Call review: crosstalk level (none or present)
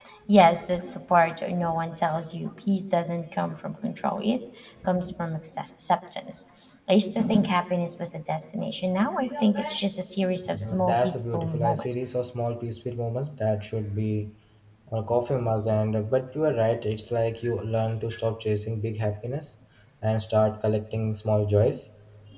present